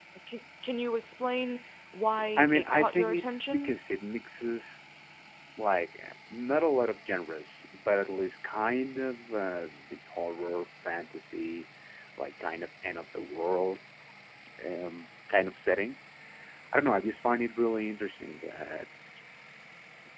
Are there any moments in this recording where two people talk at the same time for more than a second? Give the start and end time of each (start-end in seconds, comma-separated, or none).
2.4-3.7